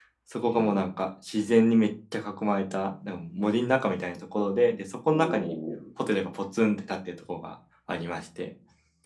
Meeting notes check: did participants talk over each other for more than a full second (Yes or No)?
No